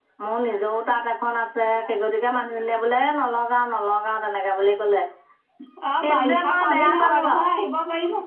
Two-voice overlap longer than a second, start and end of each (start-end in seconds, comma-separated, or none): 6.0-7.5